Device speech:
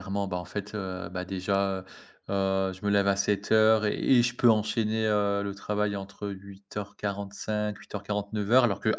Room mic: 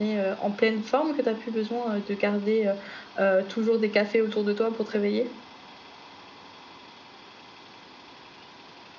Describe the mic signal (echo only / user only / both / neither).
user only